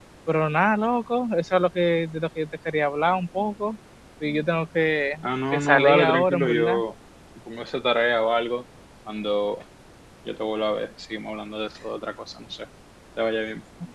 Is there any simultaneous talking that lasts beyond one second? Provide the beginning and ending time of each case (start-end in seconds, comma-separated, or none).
5.5-6.8